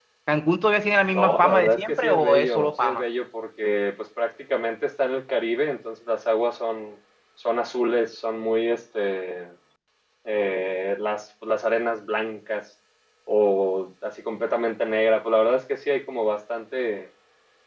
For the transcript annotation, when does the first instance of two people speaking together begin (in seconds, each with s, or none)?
1.1 s